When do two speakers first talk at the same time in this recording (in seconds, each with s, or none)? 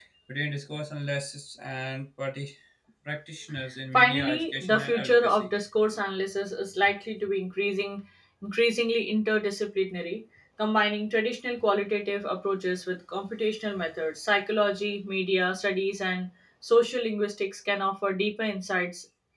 3.9 s